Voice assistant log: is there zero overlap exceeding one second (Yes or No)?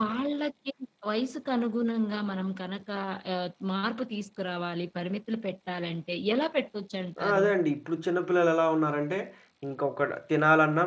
Yes